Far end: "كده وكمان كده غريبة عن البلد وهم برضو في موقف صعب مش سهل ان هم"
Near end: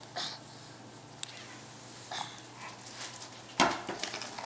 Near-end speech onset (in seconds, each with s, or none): none